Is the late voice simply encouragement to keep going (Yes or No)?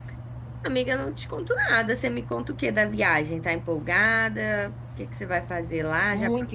No